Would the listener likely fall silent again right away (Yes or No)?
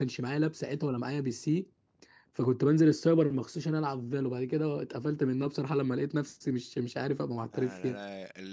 No